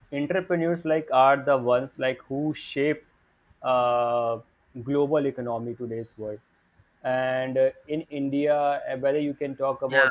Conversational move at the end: listening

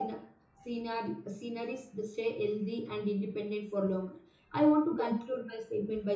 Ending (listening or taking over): listening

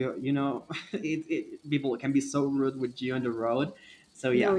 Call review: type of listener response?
listening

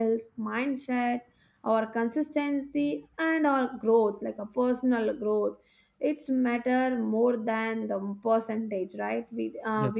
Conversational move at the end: listening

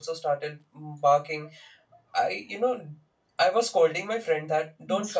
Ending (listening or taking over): listening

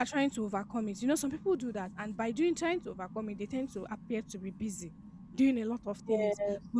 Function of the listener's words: listening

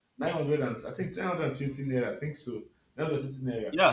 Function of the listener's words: taking over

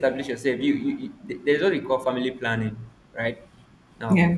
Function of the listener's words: listening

